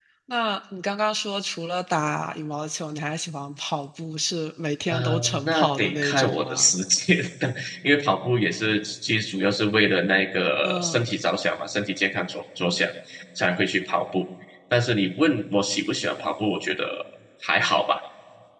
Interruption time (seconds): 4.9 s

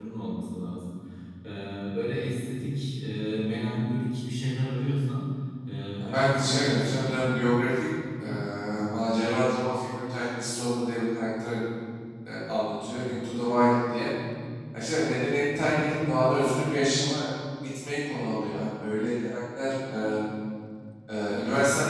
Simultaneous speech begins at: 6.0 s

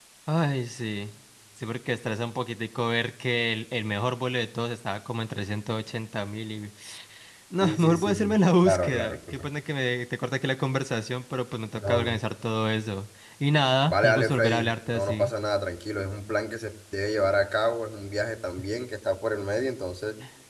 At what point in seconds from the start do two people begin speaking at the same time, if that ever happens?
7.6 s

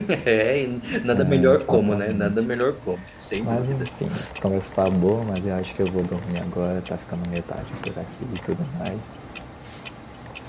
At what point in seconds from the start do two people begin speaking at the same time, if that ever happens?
1.1 s

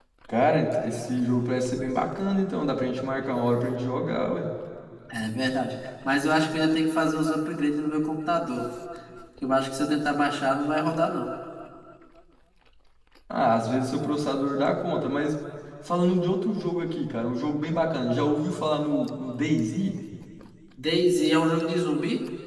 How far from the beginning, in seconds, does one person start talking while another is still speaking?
none

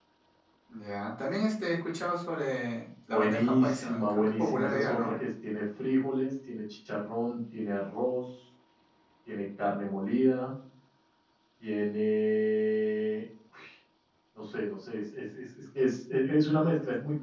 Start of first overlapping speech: 3.1 s

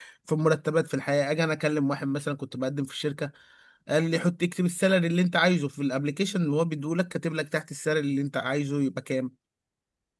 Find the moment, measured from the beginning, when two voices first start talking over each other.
none

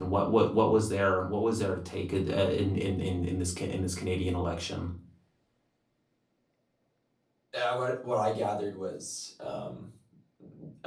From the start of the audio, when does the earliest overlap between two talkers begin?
none

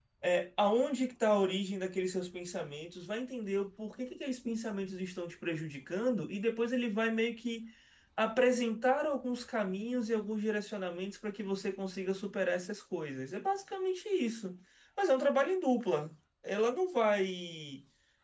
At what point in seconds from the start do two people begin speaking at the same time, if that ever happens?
none

